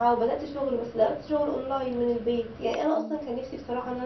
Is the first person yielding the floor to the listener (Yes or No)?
No